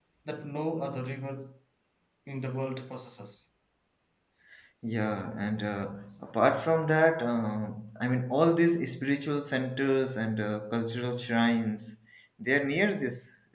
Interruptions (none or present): none